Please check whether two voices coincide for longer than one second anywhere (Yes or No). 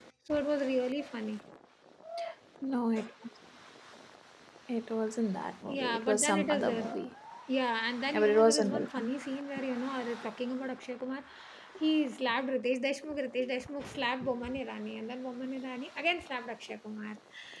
Yes